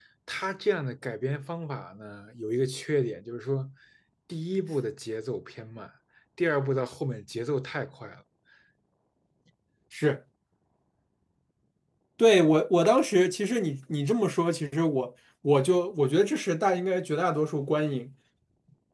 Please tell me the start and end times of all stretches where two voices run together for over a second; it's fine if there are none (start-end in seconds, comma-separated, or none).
none